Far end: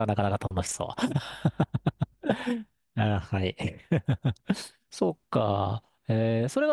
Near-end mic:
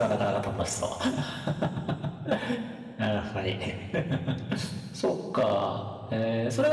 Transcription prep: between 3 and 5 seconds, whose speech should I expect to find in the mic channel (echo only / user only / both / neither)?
echo only